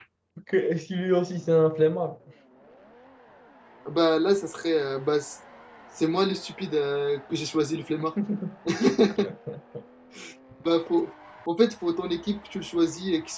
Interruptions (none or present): none